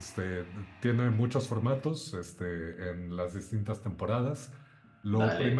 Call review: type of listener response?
listening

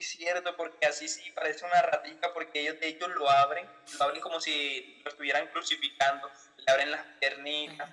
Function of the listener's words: listening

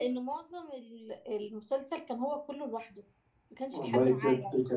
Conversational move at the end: taking over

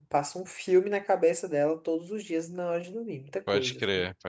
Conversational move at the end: taking over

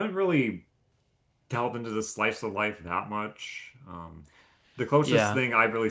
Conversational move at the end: listening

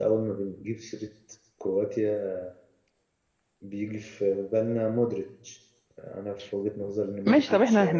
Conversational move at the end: taking over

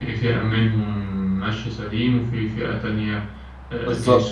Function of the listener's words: listening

